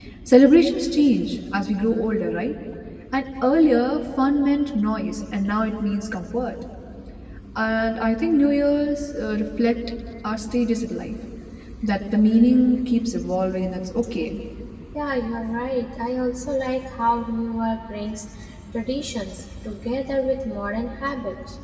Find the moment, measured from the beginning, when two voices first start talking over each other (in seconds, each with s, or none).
none